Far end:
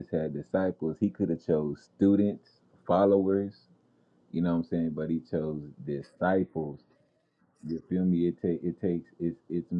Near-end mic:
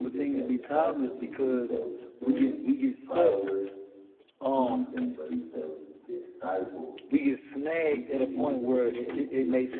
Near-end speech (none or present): present